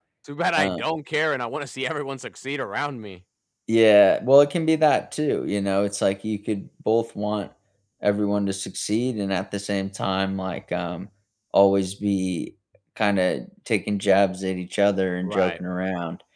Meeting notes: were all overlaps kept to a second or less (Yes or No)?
Yes